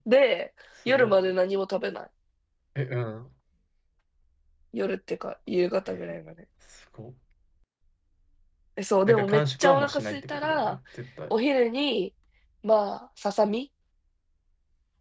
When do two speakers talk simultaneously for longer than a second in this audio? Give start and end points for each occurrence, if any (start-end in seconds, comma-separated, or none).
9.0-10.8